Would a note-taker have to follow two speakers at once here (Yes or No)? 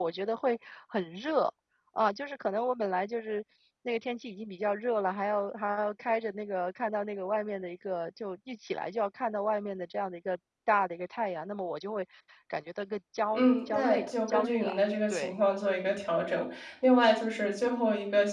Yes